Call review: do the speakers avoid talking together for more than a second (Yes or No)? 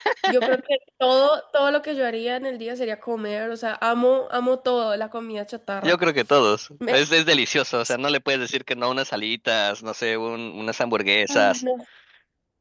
Yes